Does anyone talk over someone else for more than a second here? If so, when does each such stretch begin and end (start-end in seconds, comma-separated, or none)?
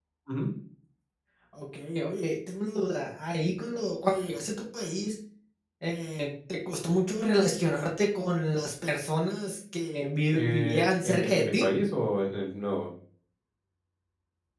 10.3-11.7